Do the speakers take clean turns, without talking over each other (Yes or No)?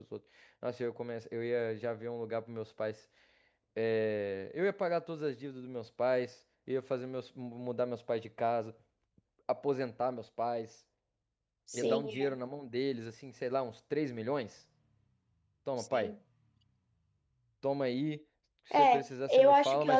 No